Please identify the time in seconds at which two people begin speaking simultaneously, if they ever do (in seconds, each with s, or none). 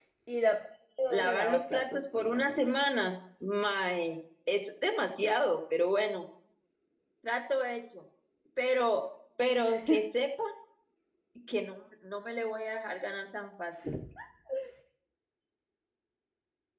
1.1 s